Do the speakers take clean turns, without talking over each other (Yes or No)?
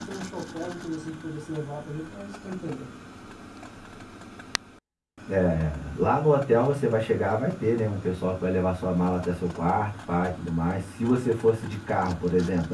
Yes